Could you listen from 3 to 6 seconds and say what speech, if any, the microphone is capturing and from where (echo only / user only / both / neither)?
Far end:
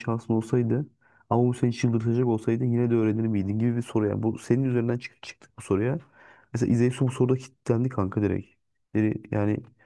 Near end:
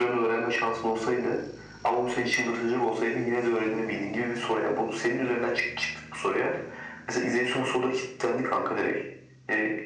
echo only